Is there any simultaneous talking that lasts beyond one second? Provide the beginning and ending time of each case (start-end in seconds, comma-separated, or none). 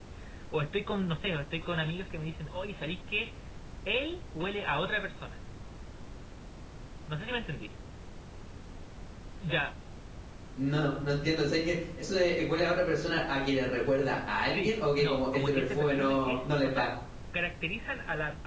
14.5-16.9